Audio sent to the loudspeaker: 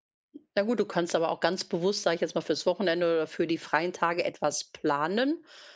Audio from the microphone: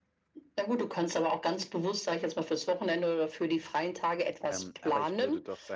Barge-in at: 4.4 s

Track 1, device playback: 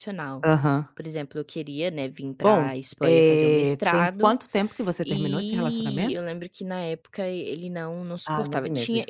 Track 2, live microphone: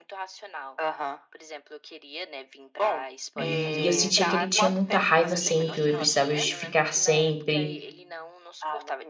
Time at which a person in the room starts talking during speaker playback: 3.4 s

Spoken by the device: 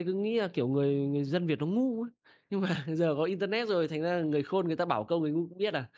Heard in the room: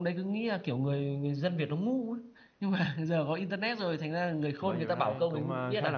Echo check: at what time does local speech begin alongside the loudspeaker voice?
4.6 s

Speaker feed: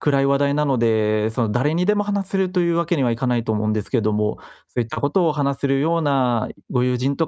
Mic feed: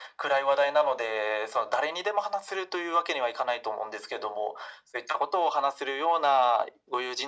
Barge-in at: none

